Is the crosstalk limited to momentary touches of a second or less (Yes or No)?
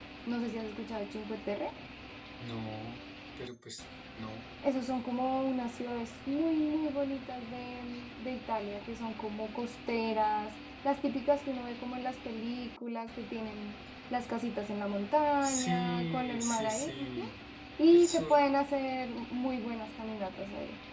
No